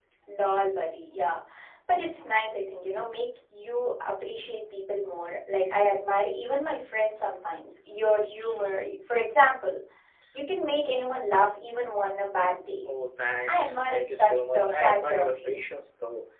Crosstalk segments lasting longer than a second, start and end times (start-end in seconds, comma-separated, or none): 13.5-15.6